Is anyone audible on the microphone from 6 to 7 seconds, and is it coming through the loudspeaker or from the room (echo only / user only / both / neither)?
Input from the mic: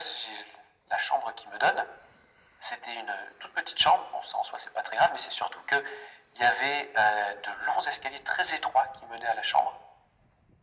echo only